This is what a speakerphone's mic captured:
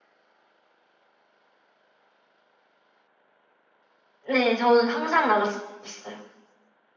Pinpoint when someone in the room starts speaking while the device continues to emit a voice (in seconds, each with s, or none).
4.2 s